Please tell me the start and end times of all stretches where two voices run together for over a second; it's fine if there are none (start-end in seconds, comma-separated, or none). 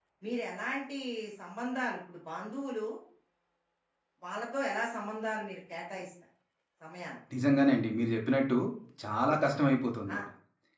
none